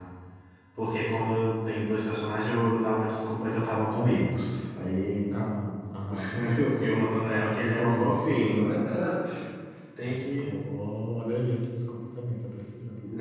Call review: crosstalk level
present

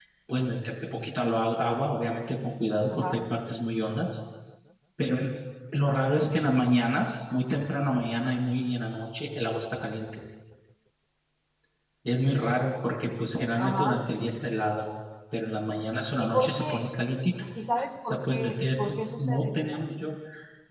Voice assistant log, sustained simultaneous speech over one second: present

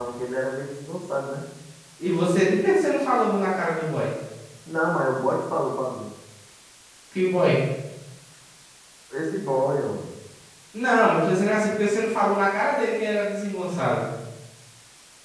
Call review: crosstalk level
none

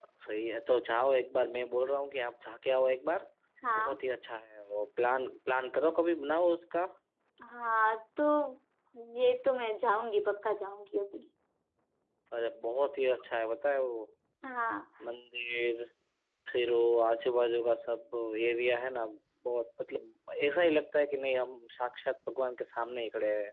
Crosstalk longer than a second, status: none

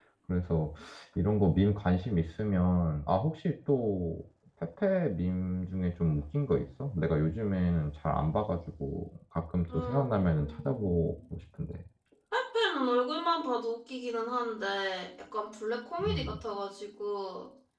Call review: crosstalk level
present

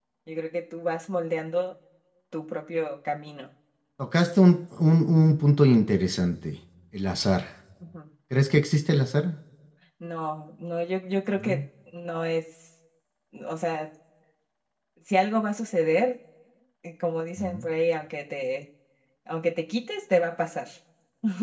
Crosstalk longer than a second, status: none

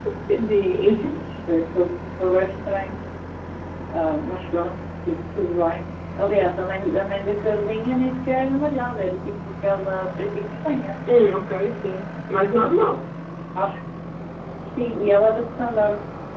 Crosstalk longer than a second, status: none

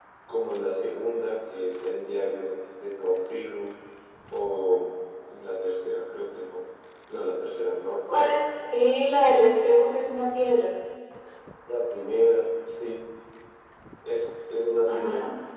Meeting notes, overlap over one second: none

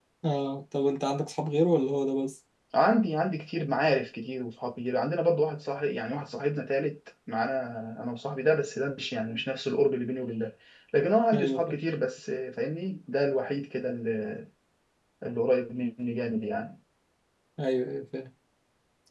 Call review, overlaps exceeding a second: none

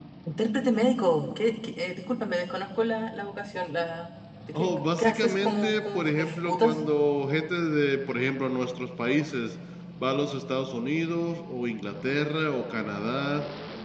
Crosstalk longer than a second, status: present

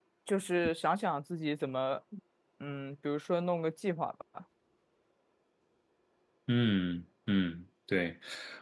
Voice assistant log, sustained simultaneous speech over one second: none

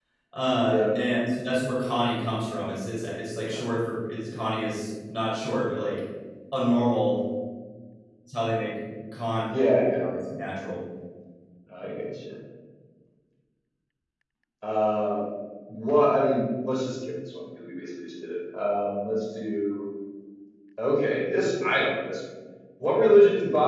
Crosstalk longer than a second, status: none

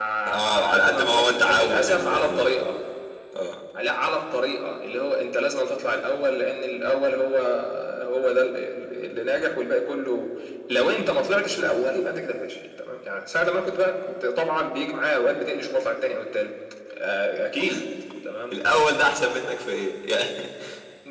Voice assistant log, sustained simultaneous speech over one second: present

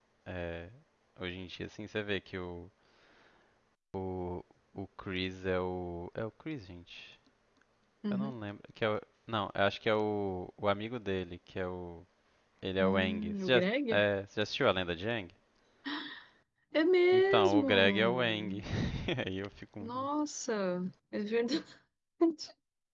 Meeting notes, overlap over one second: present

